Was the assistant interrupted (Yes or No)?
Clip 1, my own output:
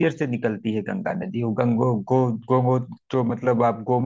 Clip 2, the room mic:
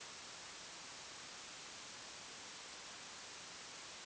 No